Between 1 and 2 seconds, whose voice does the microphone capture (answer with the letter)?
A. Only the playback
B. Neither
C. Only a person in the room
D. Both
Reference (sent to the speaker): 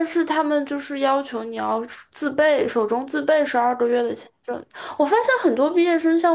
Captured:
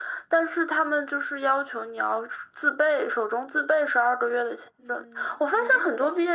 A